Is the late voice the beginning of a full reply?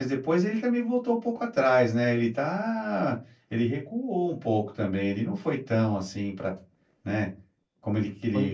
No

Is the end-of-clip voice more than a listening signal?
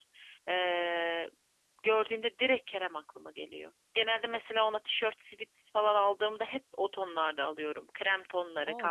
Yes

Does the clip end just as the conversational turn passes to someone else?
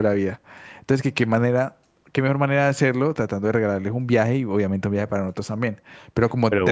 Yes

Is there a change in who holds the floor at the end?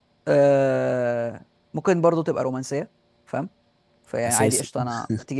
No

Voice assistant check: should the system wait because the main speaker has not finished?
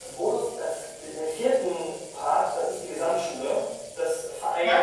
Yes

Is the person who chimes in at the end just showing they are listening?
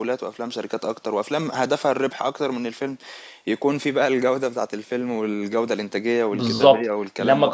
No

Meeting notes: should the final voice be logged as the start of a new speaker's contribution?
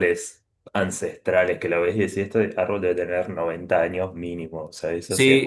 Yes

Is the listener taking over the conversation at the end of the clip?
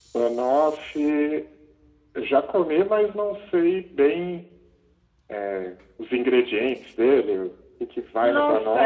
Yes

